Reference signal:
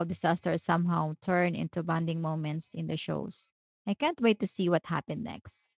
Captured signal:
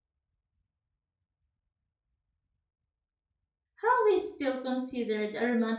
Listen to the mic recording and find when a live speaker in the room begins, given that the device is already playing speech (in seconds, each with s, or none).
3.8 s